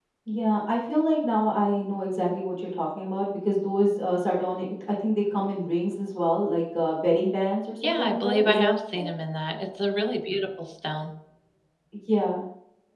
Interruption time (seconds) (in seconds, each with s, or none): 7.8 s